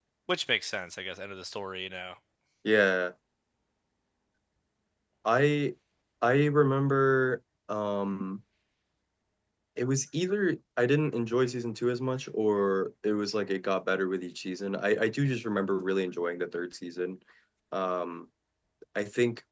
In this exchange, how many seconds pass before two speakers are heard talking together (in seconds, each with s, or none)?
none